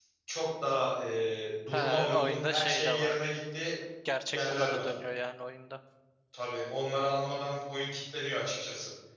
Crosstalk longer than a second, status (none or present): present